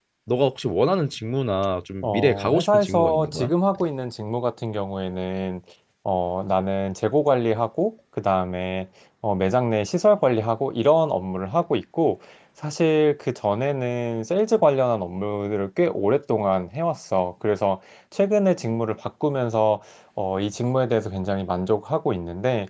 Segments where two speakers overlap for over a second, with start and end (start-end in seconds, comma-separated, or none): 2.0-3.5